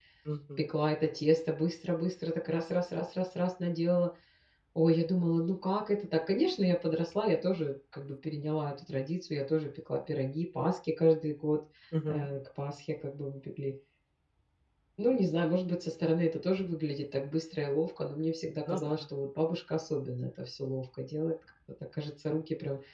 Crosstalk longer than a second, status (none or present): none